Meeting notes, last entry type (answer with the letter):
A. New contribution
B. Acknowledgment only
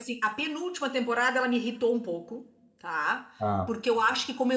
B